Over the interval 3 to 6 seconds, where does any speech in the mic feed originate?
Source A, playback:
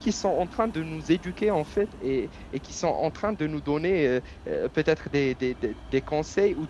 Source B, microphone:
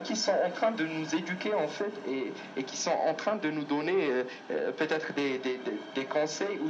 echo only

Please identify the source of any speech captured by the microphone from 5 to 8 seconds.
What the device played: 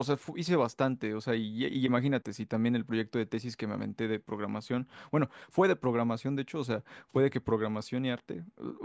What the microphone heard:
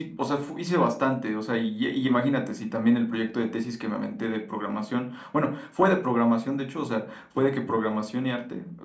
echo only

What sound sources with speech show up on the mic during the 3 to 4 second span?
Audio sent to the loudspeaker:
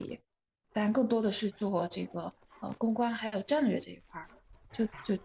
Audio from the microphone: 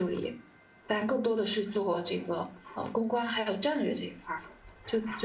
echo only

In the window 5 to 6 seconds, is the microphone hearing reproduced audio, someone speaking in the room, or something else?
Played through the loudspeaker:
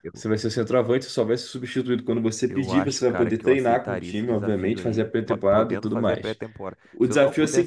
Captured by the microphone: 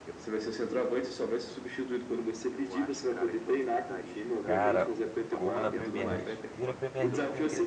both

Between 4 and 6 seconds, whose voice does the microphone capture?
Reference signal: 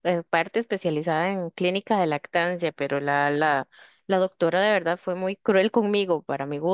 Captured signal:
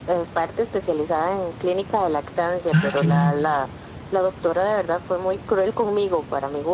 echo only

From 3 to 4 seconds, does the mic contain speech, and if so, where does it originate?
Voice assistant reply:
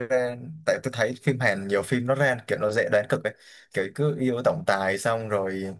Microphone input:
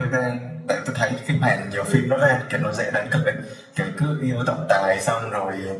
echo only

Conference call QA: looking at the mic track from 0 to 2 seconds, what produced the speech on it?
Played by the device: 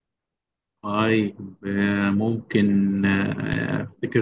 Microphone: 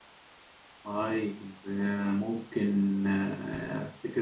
echo only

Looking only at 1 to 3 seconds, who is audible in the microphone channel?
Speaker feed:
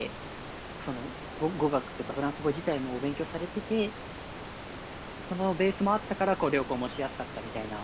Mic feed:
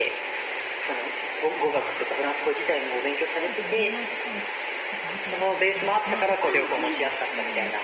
echo only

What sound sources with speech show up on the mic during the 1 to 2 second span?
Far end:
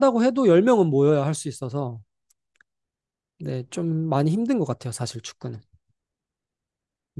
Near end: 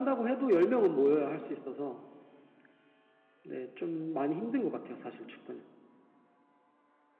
echo only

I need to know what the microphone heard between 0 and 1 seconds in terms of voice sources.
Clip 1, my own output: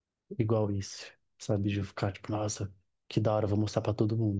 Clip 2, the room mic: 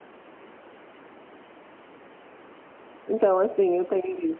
neither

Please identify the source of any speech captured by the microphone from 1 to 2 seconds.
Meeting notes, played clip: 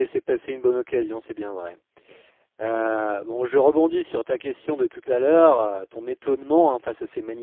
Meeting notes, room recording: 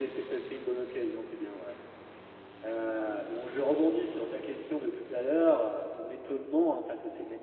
echo only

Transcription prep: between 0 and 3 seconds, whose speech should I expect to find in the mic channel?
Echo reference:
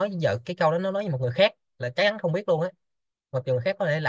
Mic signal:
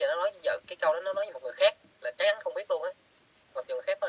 echo only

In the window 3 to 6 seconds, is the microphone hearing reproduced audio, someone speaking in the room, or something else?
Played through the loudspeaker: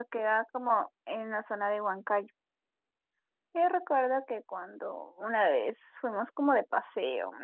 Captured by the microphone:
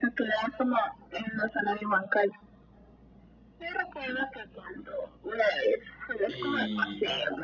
echo only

